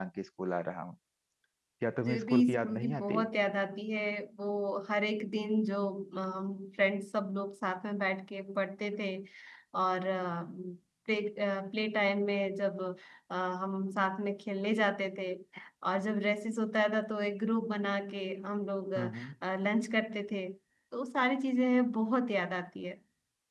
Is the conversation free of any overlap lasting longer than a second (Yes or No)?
No